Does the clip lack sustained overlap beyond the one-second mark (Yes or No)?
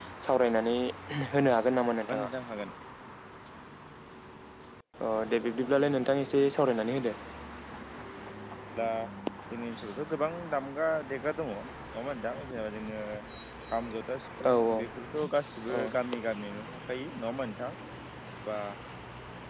Yes